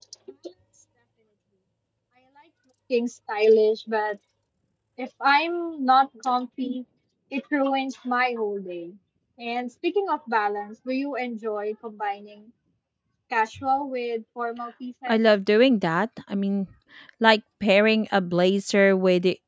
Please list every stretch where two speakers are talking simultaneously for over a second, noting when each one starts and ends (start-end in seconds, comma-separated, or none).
none